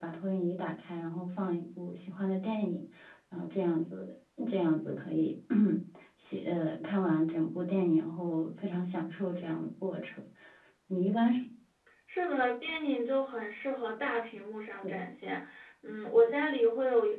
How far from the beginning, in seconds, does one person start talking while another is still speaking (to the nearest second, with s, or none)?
none